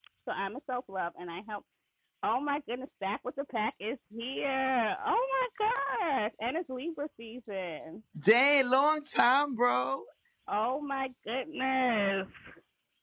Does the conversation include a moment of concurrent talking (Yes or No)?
No